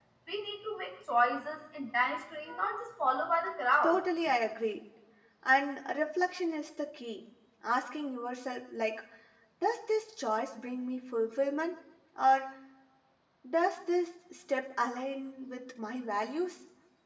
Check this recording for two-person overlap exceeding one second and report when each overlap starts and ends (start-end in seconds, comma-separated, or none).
none